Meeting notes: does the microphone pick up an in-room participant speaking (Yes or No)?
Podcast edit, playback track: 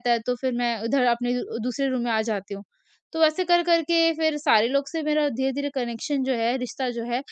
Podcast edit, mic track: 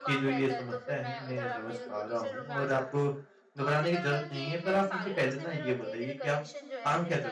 Yes